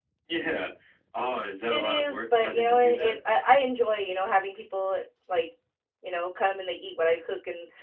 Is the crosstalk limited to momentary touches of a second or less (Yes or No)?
No